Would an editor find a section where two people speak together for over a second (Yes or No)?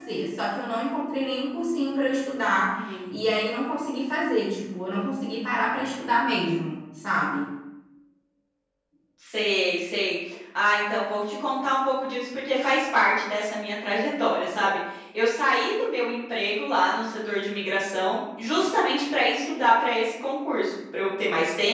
No